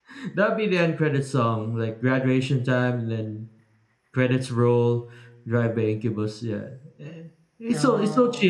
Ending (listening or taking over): listening